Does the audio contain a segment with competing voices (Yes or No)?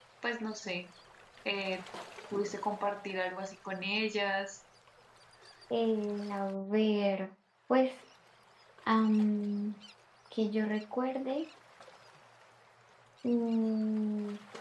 No